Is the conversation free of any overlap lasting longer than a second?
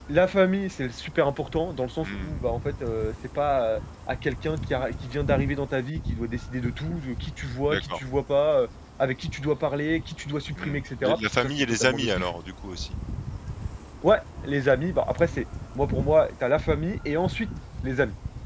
No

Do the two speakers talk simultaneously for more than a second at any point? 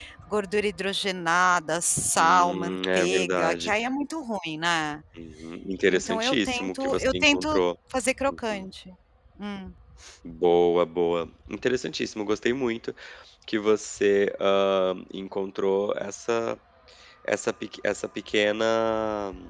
Yes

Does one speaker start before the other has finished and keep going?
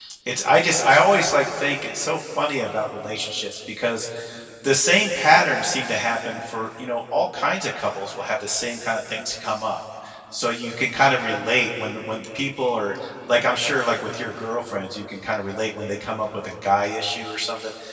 No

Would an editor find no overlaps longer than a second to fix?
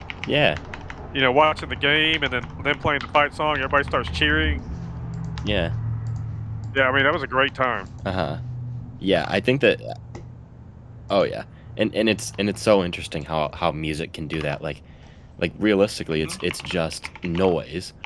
Yes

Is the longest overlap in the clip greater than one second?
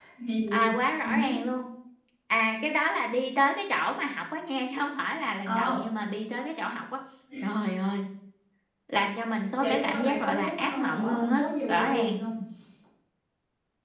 Yes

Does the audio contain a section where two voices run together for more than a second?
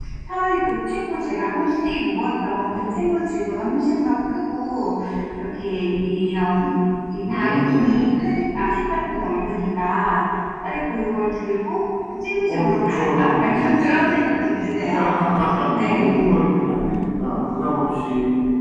Yes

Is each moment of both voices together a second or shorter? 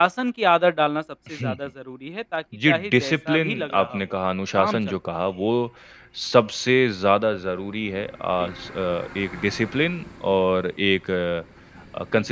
No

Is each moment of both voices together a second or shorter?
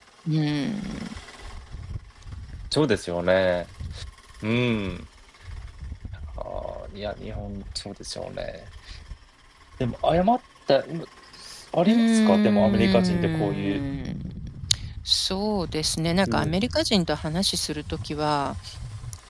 No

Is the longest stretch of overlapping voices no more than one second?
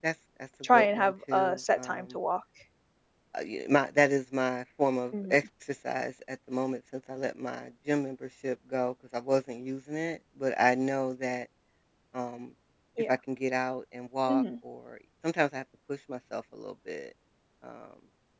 No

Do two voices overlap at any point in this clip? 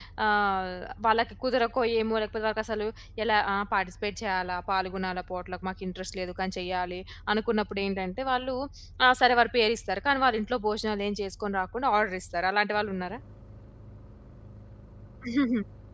No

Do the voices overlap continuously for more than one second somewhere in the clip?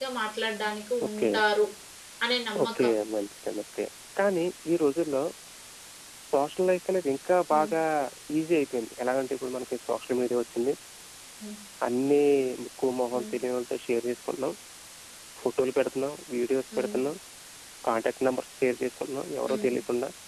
No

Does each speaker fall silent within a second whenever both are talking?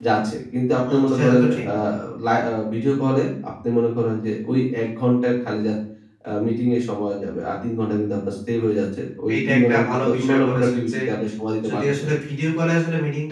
No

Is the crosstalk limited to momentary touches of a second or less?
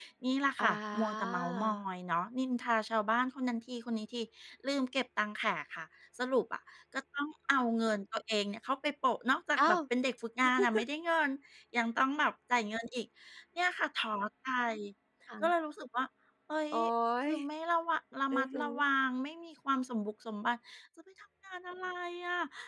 No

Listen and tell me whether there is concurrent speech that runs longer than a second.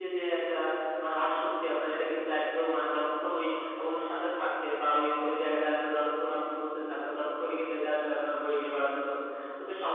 No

